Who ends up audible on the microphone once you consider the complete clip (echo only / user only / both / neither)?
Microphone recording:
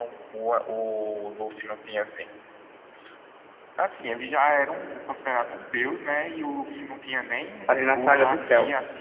both